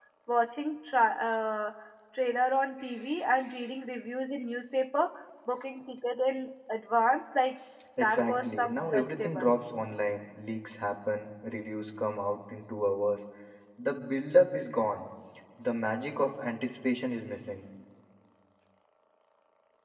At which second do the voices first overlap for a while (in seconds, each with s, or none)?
8.0 s